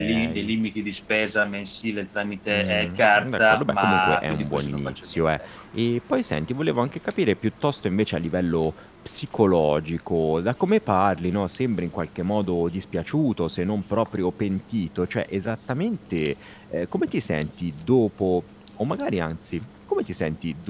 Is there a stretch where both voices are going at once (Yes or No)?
Yes